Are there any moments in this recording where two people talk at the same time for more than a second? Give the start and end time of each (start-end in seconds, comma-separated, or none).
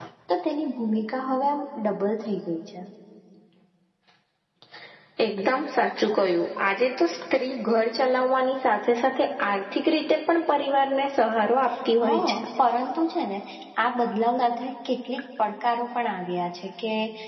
none